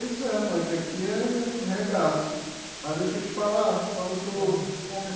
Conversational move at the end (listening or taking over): listening